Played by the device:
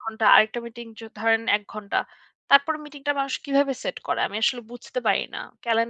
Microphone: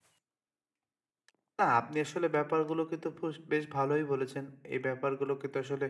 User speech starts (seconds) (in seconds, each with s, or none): 1.6 s